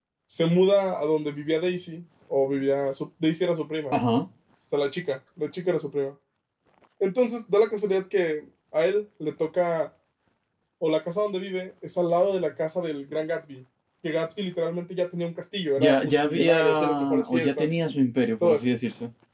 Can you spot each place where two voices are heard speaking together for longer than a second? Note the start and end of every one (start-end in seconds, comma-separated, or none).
15.8-17.7